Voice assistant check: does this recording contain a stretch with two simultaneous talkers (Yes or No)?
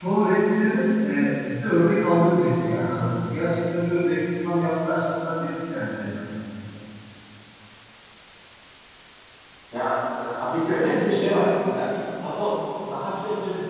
No